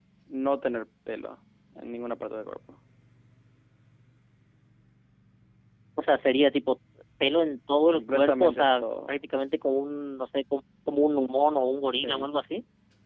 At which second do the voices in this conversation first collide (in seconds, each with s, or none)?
7.9 s